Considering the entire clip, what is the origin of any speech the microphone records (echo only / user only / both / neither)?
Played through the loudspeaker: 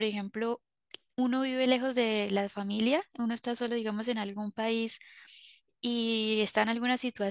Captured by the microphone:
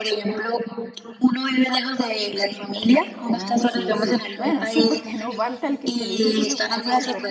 both